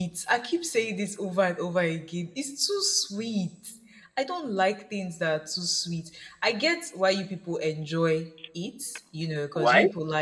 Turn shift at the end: No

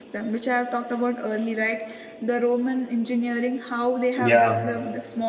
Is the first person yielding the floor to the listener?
No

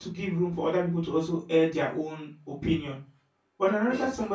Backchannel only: Yes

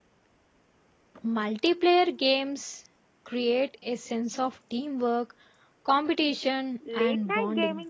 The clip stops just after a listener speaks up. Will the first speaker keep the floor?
No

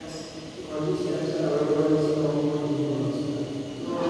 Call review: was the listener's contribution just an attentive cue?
Yes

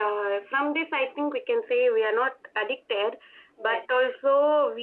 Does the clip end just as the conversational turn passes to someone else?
No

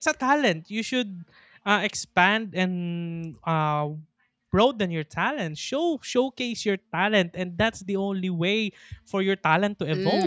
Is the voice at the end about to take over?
Yes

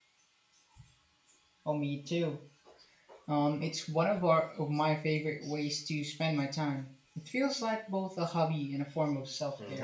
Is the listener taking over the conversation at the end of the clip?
Yes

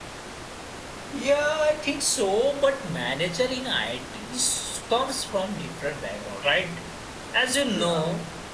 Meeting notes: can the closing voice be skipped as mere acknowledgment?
Yes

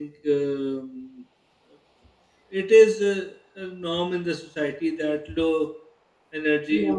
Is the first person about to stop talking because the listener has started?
No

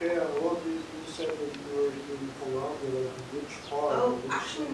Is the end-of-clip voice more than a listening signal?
Yes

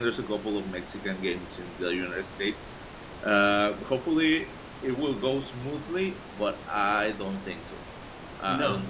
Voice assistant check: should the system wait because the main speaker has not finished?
No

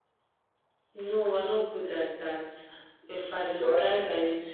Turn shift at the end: No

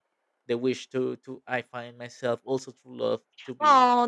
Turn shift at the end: Yes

